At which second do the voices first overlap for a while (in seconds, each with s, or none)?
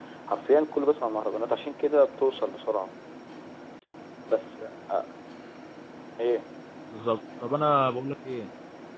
none